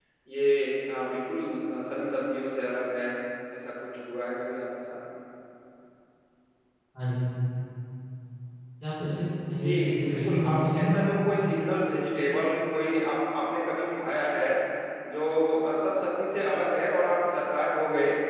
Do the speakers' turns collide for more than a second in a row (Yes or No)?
Yes